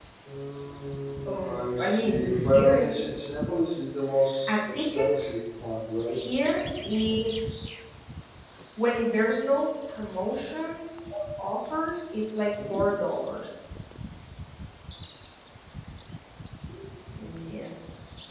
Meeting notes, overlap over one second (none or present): present